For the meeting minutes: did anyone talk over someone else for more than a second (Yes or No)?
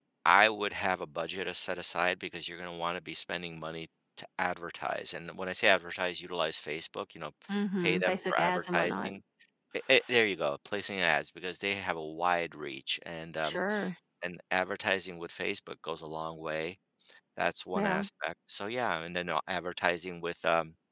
Yes